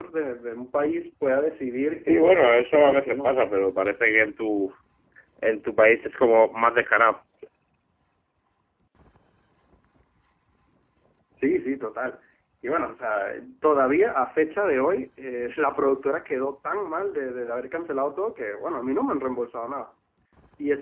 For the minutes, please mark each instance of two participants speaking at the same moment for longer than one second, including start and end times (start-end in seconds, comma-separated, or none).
2.1-3.3